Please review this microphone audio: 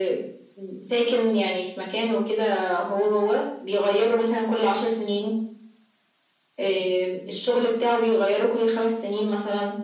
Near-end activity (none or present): none